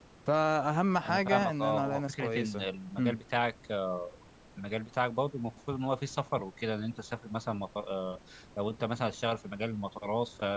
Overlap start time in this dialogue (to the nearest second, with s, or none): 1 s